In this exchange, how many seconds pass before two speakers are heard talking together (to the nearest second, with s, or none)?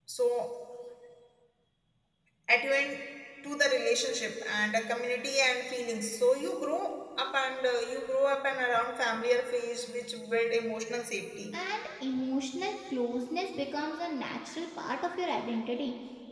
none